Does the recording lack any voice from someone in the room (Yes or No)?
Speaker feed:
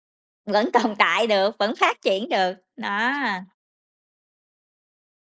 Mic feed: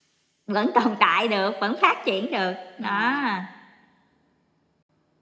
No